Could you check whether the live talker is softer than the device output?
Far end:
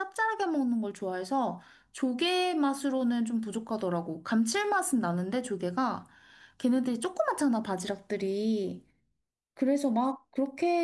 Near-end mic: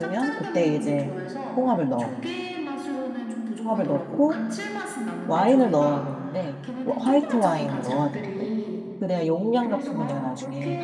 No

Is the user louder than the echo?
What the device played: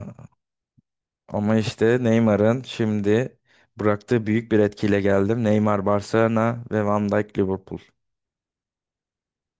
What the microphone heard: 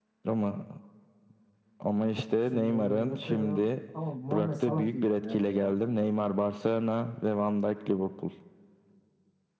No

